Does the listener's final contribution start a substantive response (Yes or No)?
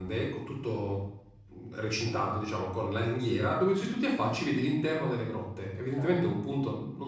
No